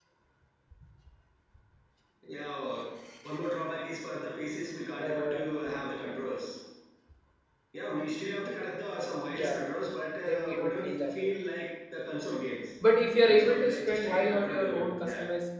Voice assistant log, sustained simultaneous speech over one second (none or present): present